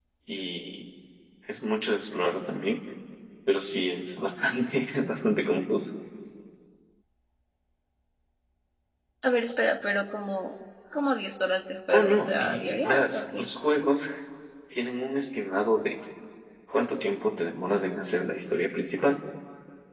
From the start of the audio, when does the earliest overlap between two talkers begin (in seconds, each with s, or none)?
11.9 s